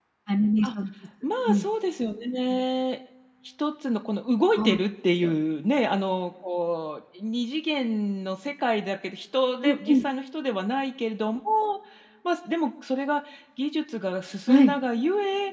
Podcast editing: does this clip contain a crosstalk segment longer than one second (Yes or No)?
No